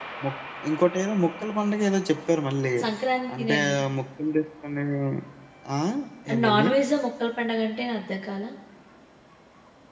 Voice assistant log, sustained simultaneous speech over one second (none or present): none